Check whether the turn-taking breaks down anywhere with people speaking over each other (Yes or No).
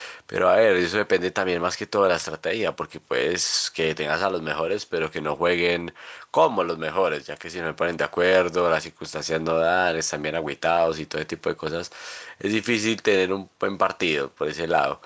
No